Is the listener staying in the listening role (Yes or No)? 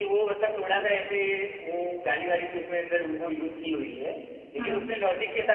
Yes